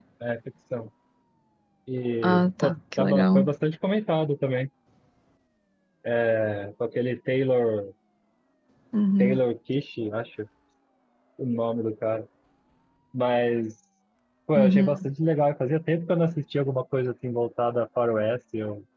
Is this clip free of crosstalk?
No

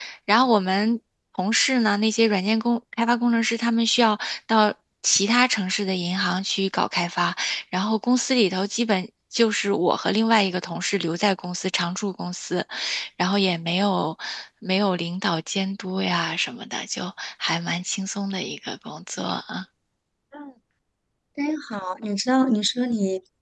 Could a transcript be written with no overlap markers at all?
Yes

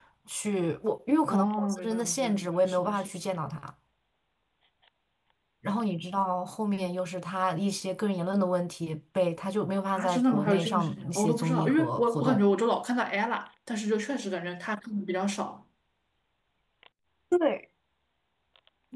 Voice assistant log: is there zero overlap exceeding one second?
No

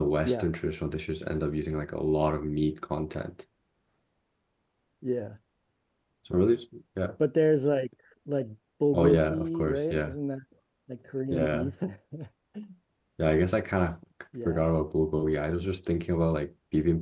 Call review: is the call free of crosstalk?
No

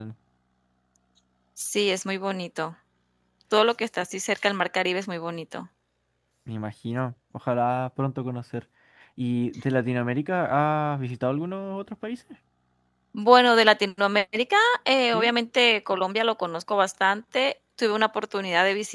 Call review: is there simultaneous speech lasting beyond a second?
No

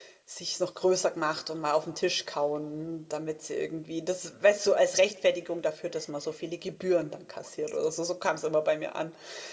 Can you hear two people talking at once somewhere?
No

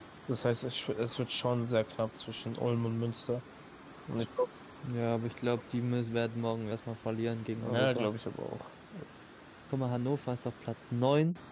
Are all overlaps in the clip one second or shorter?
Yes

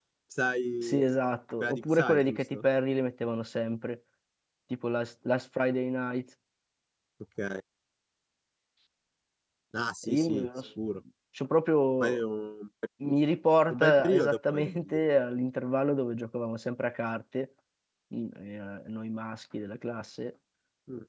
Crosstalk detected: Yes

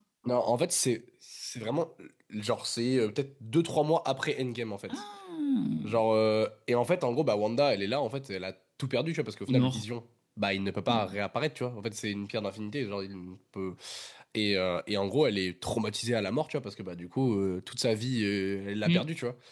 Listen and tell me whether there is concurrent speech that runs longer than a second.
No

